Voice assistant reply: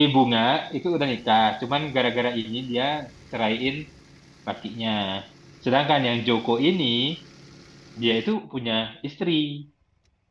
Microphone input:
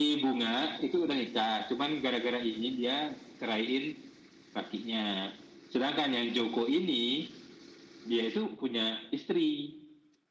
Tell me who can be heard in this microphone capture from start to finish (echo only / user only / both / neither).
echo only